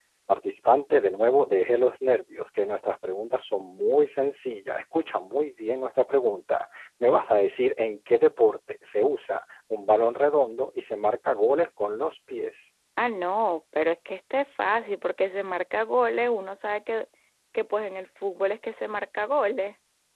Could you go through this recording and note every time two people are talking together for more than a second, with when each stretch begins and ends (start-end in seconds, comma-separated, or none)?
none